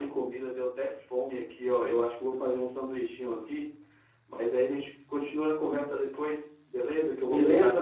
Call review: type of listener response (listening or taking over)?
taking over